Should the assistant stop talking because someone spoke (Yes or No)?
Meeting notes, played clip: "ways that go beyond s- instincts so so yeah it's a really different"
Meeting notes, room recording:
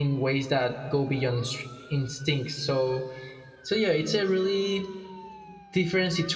No